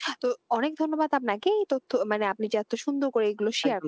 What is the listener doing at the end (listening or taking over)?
taking over